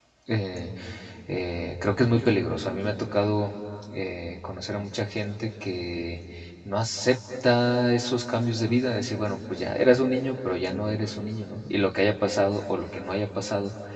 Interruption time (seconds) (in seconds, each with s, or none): none